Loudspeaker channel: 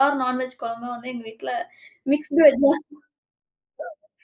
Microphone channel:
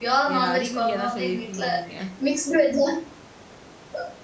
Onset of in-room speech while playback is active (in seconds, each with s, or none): 0.3 s